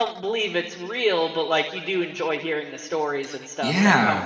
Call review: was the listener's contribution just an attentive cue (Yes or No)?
No